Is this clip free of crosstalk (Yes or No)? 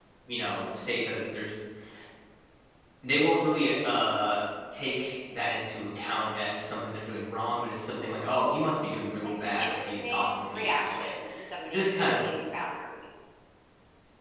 No